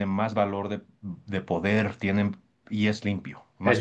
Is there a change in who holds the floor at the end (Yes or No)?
Yes